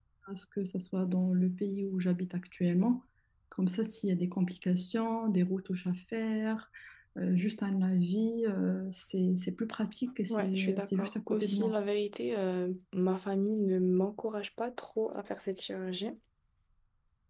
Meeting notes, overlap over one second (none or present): present